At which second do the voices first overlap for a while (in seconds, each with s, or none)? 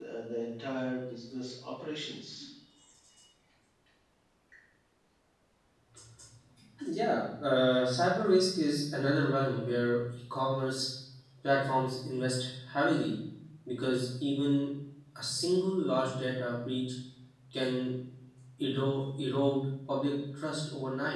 none